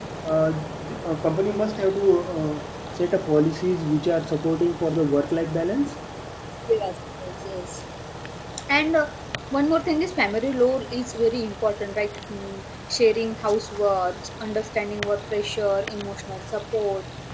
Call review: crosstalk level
none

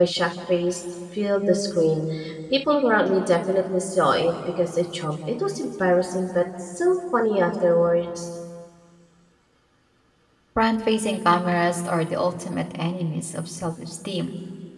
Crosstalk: none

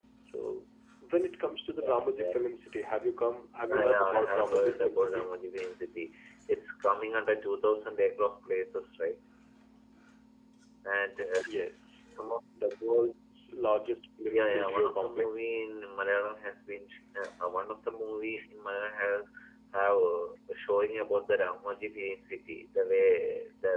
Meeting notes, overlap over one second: present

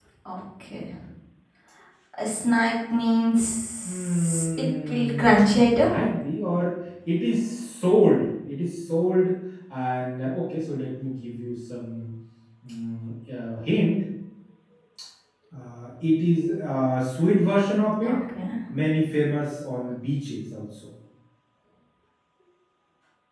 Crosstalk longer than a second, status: present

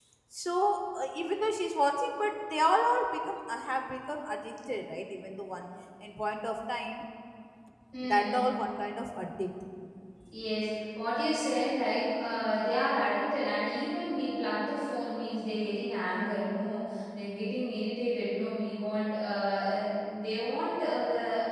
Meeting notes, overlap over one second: none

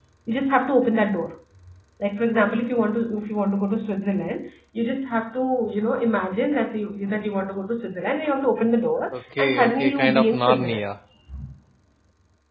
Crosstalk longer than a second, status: present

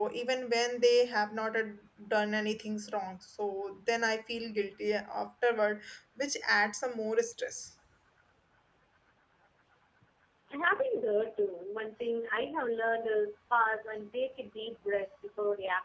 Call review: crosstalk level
none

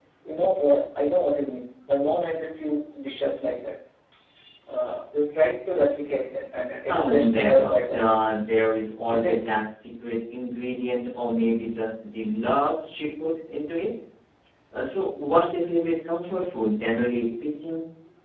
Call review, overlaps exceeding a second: present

